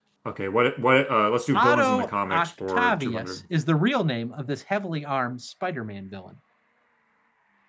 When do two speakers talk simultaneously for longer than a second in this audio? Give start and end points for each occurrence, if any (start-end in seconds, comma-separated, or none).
1.5-3.4